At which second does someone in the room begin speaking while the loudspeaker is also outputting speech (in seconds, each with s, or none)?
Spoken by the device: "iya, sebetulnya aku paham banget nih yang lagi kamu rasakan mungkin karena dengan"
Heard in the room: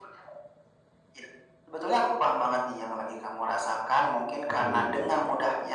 4.5 s